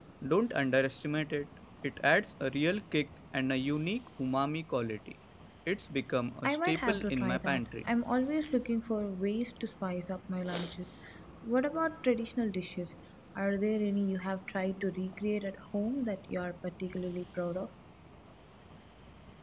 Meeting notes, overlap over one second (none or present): present